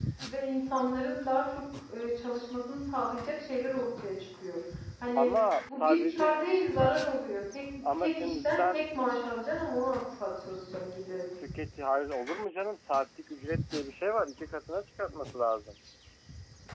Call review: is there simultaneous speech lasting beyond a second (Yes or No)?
Yes